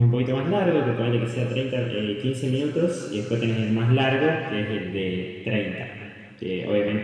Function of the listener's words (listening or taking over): listening